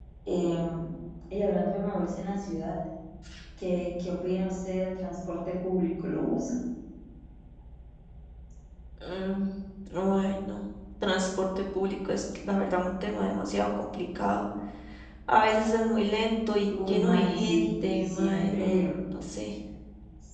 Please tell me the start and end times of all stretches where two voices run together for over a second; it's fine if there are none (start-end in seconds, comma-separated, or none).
16.9-18.9